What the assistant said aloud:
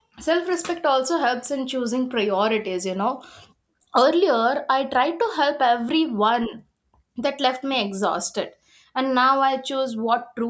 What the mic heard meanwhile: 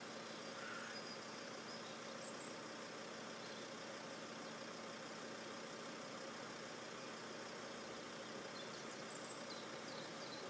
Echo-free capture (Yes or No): Yes